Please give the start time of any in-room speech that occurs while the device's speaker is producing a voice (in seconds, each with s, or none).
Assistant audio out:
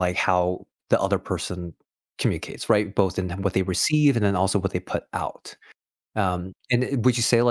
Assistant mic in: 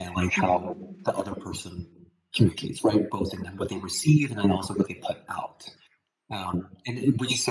0.4 s